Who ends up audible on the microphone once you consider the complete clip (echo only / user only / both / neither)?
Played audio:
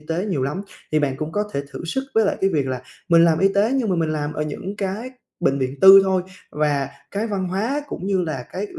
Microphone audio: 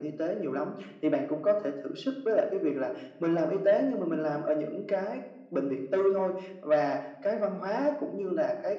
echo only